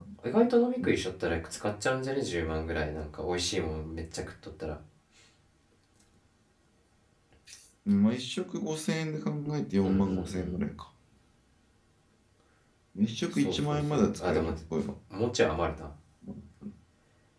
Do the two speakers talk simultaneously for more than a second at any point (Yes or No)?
Yes